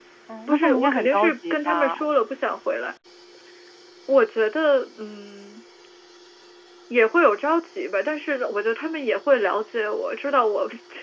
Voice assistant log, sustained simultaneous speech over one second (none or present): present